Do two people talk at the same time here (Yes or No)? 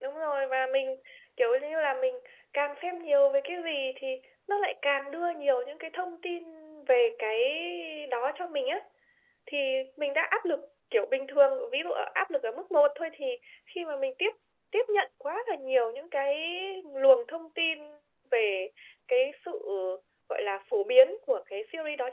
No